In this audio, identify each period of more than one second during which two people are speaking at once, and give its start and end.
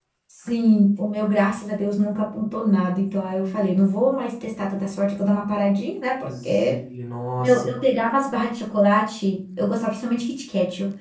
none

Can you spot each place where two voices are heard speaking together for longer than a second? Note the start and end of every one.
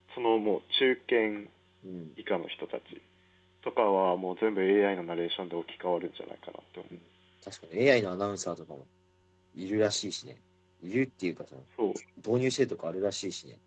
none

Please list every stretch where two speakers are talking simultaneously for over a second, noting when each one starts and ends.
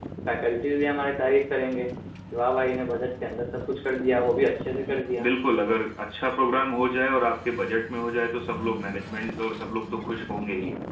none

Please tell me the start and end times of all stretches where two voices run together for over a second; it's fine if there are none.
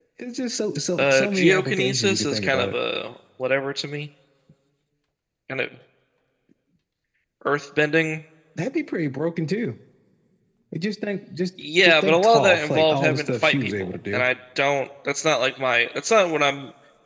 1.0-2.8, 11.8-14.2

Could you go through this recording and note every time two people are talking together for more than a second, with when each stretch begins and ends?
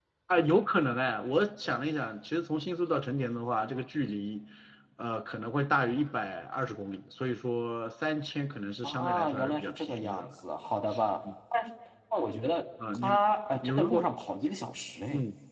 8.8-10.3

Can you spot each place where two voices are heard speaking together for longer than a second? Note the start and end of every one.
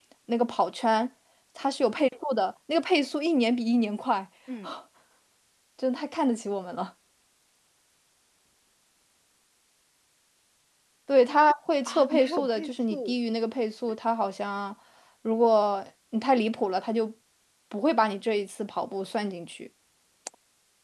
11.8-13.2

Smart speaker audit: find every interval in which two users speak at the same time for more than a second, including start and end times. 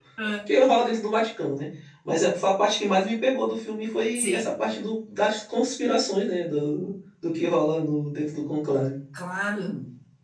none

